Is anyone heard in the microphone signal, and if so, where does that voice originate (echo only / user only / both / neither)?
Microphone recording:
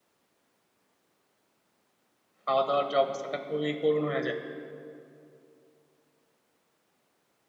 user only